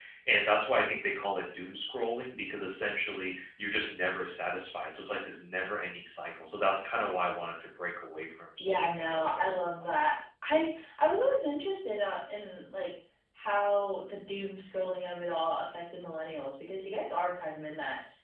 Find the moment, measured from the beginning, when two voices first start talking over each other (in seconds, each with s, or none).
8.6 s